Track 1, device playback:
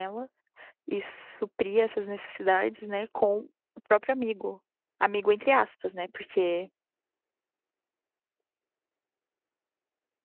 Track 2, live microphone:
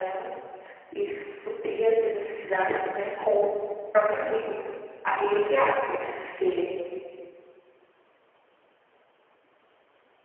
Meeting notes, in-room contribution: none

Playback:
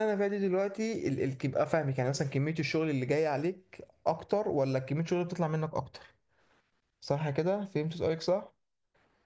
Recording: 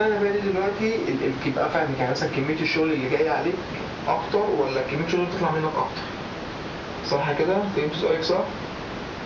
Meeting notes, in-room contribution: none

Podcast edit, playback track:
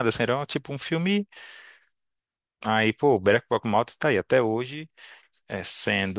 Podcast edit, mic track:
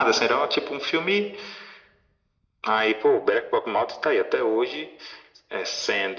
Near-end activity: none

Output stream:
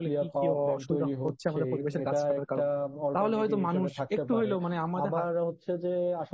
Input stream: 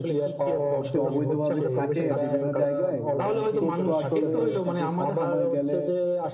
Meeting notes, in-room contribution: present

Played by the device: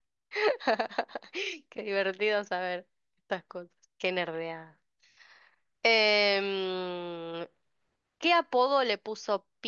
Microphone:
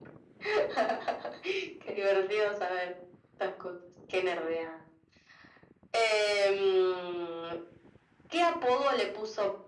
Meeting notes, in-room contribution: none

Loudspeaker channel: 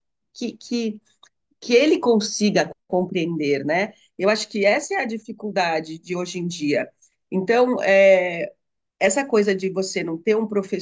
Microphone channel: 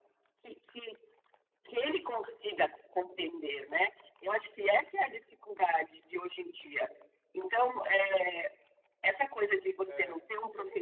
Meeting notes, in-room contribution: present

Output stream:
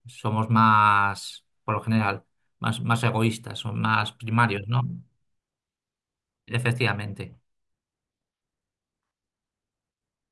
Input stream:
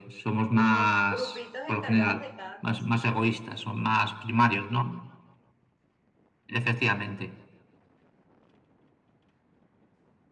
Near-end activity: present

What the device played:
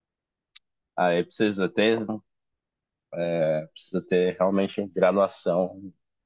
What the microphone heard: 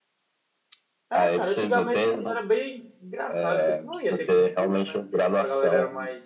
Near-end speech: present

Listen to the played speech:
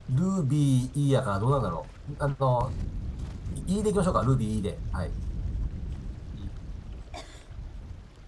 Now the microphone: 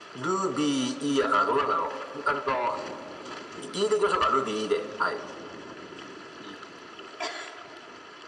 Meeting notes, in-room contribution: none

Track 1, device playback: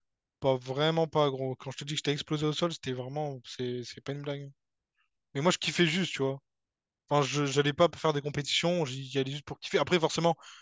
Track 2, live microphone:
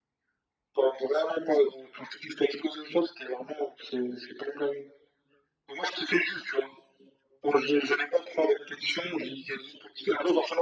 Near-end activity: none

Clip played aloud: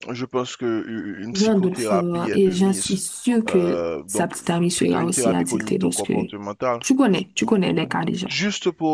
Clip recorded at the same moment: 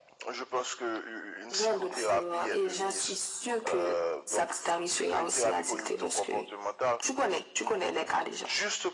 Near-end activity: none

